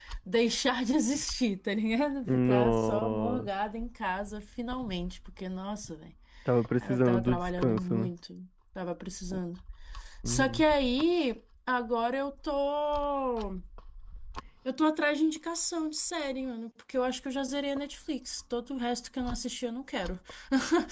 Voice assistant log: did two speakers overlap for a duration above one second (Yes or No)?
Yes